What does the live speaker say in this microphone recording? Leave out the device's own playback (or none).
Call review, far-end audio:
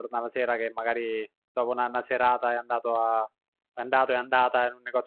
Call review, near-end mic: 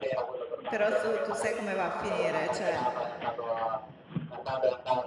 Però su- tu sai come va a finire, cioè